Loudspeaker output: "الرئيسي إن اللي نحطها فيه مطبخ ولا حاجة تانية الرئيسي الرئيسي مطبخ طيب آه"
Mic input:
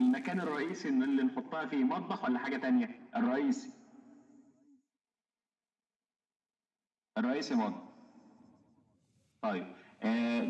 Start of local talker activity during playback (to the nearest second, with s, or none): none